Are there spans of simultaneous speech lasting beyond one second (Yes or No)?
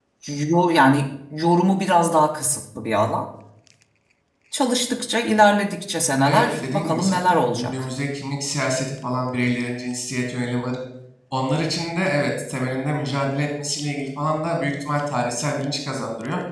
Yes